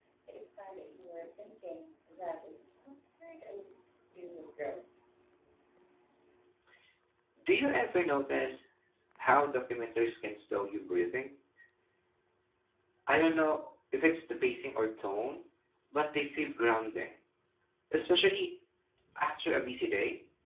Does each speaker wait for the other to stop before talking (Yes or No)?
Yes